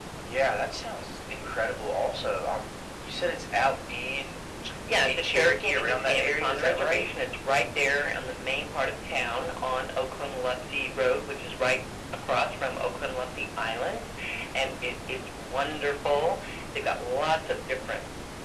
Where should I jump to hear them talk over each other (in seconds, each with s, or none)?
4.9 s